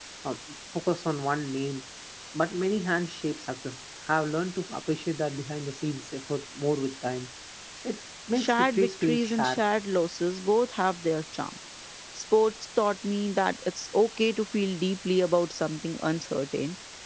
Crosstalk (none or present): present